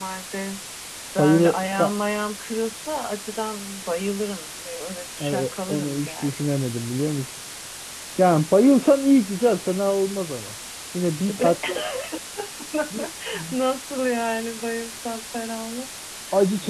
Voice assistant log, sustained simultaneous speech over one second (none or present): present